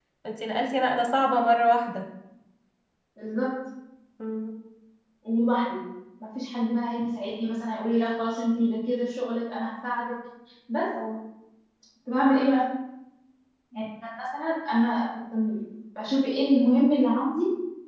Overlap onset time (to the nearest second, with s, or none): none